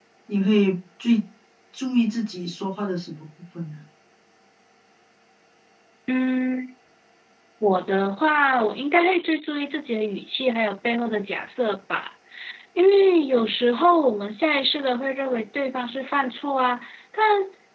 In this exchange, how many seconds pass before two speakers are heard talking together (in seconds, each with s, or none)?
none